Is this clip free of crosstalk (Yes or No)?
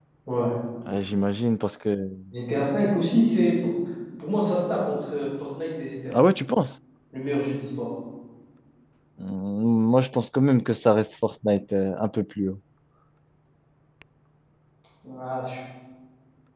Yes